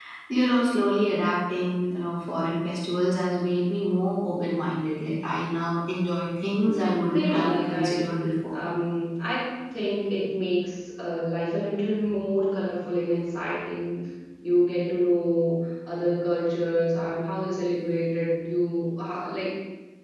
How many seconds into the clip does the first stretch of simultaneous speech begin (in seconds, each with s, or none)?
6.7 s